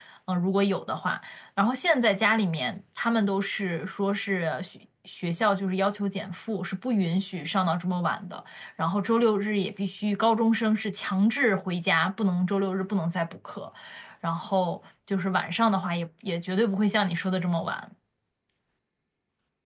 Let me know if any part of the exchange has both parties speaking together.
No

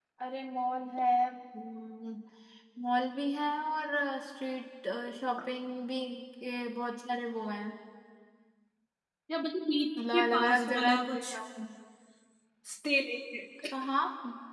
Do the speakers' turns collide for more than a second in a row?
Yes, from 10.1 s

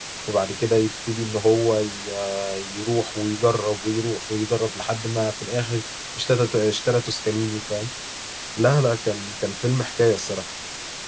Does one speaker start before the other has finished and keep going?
No

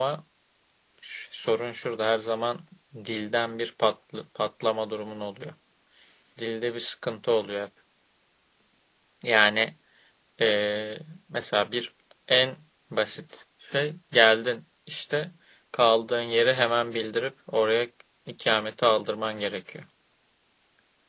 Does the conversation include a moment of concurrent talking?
No

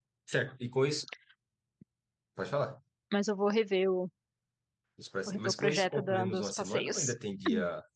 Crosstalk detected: Yes, from 5.3 s

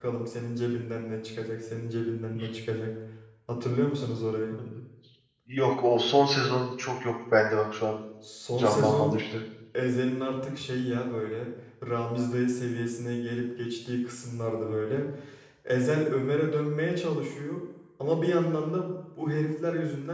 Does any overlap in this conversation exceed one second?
No

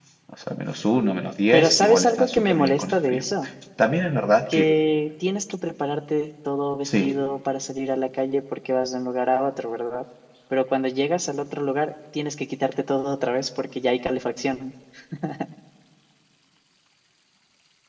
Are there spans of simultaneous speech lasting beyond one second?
Yes, from 1.5 s

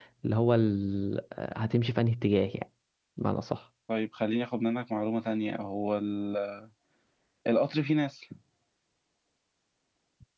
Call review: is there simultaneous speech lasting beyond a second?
No

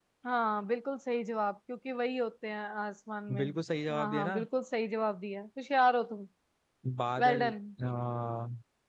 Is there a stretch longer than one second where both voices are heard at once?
No

